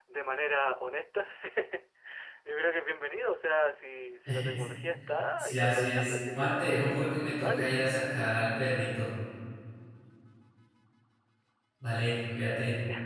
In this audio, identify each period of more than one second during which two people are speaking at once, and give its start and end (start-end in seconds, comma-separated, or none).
5.4-6.6